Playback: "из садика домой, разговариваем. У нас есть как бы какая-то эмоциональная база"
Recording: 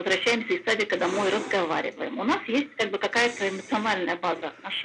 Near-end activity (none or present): none